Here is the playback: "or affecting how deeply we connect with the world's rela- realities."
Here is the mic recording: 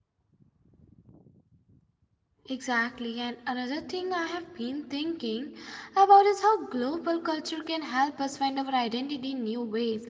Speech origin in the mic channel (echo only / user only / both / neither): user only